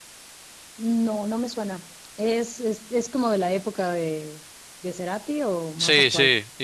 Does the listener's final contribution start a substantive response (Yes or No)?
Yes